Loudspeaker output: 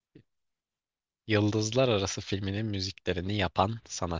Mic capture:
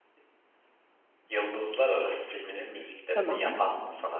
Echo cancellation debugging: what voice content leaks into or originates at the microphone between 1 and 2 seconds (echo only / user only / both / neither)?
echo only